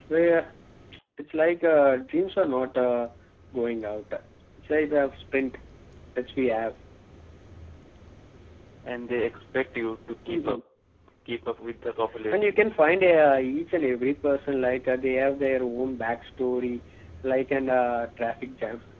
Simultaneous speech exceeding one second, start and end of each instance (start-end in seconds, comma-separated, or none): none